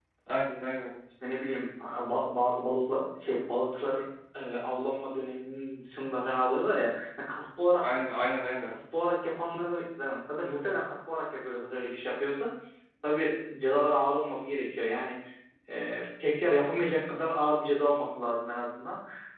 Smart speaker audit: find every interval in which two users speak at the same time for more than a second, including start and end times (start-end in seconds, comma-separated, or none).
none